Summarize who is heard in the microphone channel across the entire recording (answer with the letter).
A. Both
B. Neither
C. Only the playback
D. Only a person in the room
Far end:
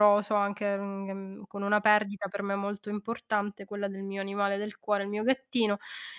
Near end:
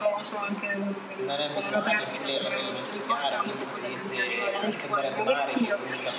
A